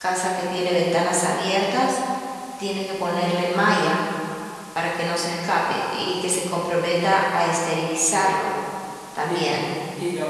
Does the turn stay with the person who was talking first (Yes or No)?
No